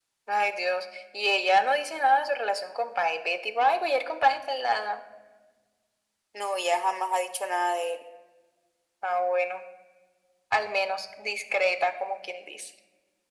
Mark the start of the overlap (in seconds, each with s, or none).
none